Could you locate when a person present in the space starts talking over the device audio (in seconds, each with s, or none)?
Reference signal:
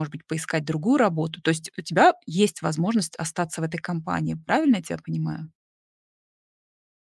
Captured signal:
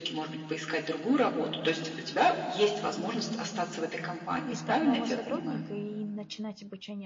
4.5 s